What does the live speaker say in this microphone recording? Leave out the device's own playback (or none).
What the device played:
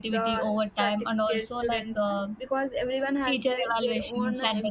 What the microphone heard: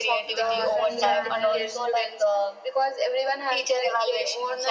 uh, different manner